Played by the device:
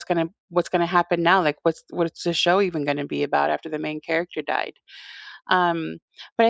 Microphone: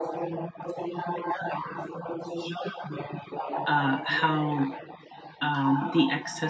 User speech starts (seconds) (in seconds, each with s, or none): 3.6 s